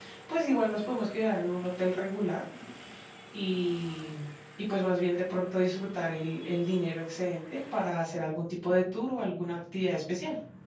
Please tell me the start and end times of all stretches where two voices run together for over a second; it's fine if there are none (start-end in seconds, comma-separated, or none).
none